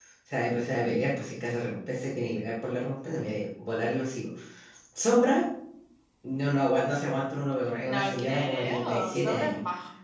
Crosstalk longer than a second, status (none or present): present